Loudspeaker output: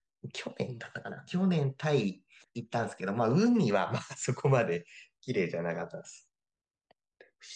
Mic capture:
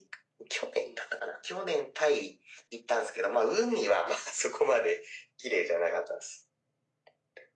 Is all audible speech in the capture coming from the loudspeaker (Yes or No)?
Yes